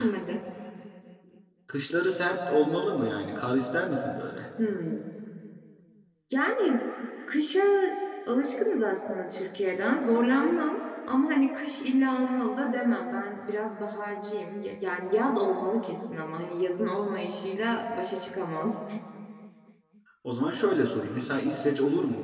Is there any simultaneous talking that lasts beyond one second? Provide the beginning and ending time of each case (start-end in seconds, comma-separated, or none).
none